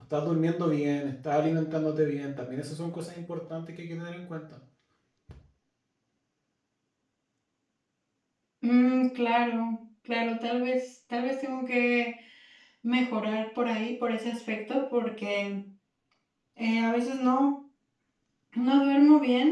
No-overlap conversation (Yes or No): Yes